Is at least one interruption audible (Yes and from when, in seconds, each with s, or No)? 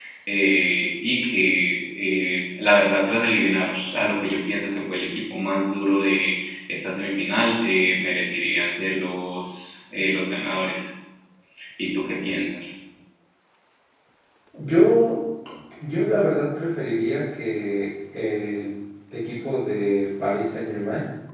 No